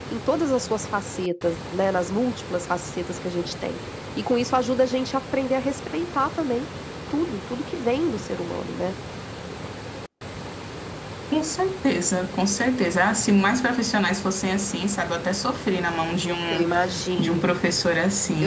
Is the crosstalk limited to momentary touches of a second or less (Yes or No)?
Yes